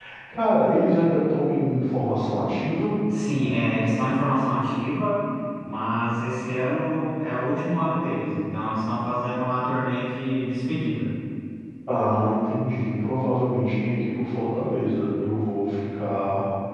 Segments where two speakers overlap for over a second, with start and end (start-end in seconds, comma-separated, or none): none